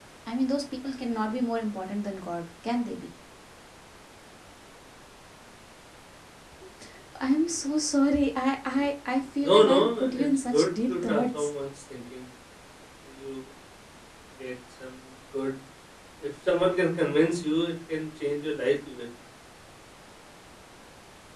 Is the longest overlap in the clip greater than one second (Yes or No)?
Yes